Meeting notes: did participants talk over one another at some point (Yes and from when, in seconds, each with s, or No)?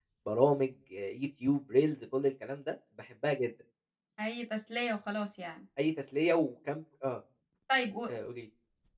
No